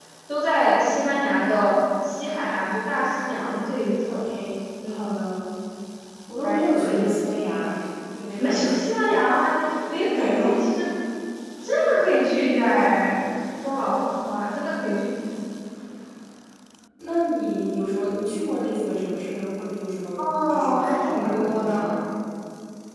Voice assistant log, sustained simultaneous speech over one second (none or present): present